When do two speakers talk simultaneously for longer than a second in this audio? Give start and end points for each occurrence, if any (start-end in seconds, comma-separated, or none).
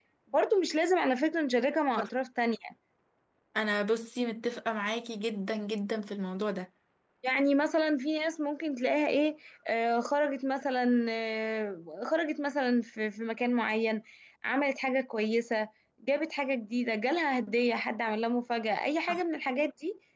none